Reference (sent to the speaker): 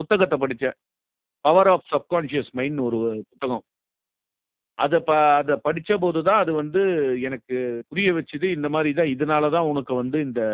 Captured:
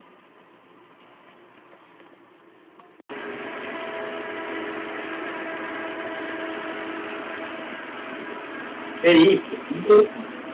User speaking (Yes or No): Yes